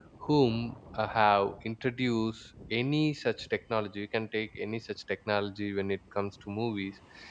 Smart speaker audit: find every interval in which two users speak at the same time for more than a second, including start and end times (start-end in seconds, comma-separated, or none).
none